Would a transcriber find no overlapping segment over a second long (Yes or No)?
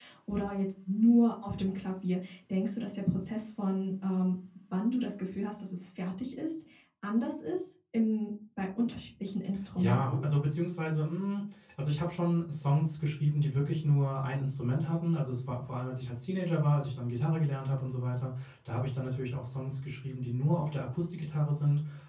Yes